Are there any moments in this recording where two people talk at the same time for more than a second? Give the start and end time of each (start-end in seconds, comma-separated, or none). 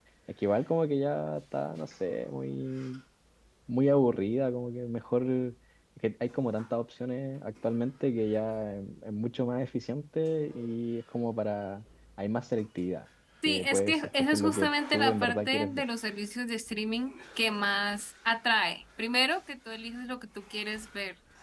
13.5-15.8